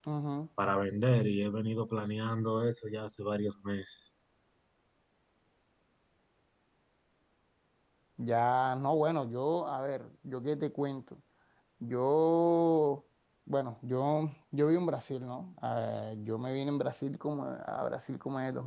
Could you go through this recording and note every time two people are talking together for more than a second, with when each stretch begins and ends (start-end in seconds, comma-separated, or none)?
none